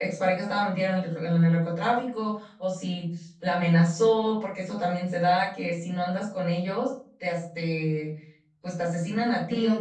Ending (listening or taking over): taking over